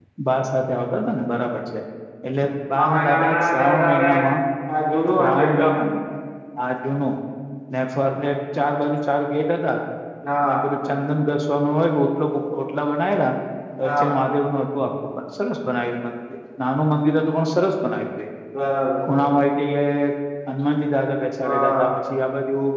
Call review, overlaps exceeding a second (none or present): present